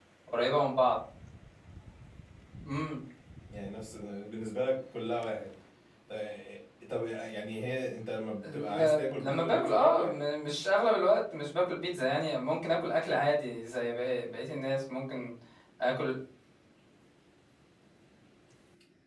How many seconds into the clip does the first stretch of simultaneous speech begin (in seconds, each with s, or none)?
8.4 s